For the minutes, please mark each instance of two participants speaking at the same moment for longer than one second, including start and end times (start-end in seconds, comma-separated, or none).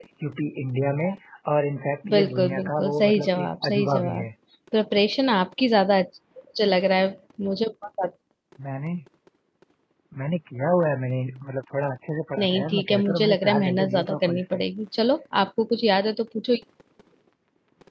2.1-4.2, 12.4-14.6